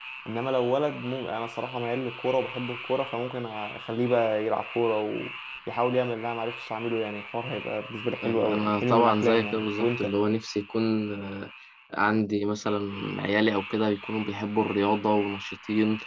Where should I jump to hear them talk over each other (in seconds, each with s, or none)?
8.2 s